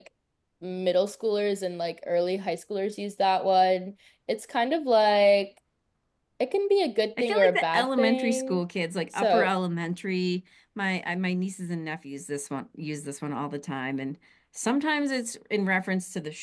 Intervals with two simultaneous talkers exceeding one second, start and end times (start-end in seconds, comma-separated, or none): 7.2-8.6